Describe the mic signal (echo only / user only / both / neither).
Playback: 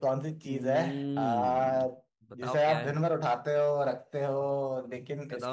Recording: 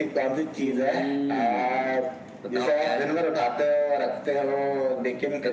echo only